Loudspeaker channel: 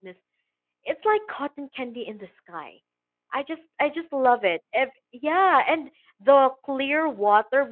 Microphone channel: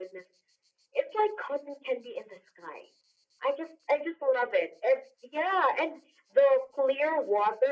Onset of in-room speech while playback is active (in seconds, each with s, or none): none